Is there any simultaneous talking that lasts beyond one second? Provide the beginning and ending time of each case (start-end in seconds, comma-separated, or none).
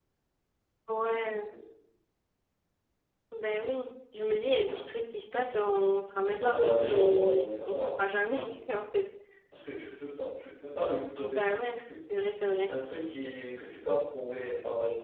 6.2-8.0